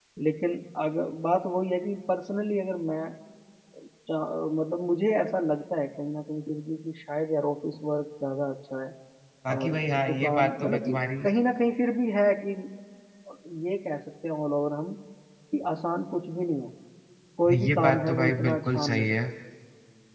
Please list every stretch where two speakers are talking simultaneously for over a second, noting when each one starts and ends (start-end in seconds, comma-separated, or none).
9.6-11.0, 17.5-19.2